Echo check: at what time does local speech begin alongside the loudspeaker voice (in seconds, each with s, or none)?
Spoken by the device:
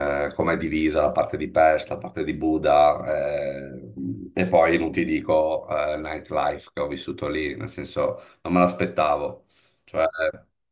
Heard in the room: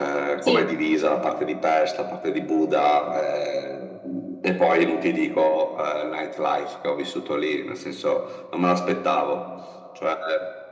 0.4 s